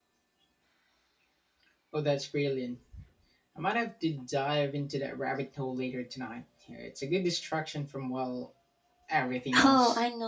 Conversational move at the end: taking over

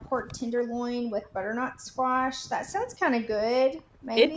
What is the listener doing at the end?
taking over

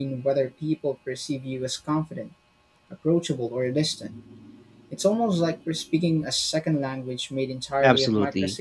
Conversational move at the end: taking over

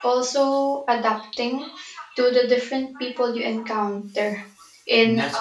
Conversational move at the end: listening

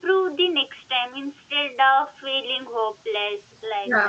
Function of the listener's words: listening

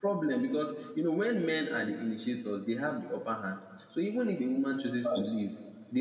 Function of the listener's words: listening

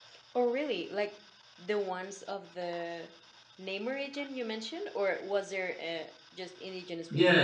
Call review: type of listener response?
taking over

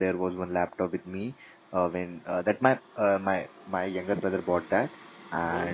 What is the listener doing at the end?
listening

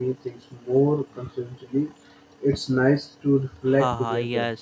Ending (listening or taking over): taking over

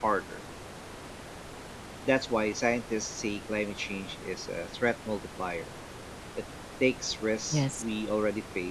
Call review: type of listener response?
listening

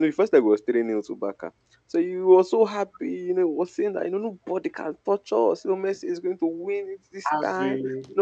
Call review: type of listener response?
listening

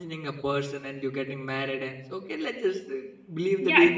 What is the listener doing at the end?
taking over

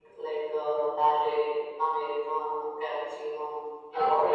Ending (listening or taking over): taking over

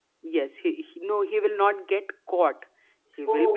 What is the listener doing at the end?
listening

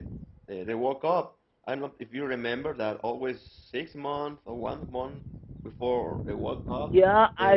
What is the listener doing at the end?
taking over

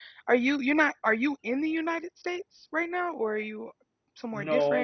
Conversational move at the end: taking over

